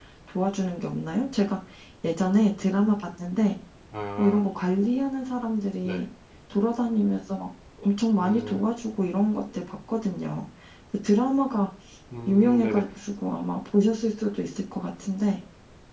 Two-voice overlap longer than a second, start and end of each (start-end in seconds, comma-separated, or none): none